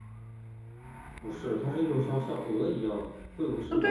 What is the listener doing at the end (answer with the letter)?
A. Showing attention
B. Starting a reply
B